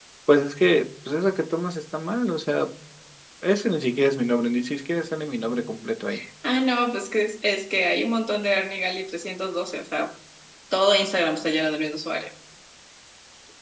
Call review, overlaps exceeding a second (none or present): none